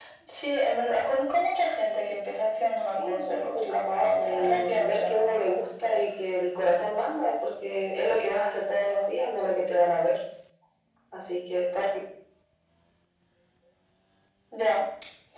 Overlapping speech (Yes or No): Yes